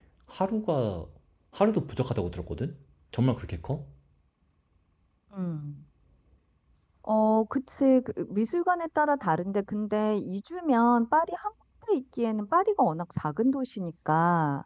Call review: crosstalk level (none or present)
none